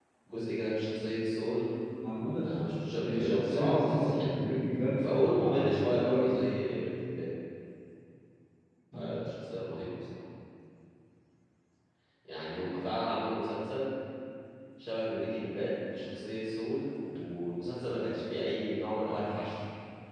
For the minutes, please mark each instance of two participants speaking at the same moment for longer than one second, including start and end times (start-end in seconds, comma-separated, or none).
3.0-4.4, 5.0-6.4